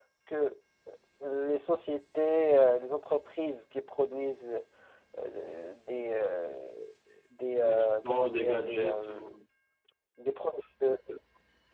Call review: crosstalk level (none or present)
present